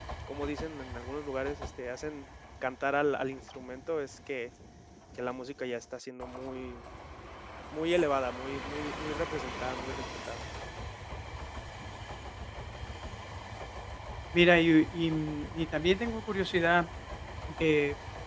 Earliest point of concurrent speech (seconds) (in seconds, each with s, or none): none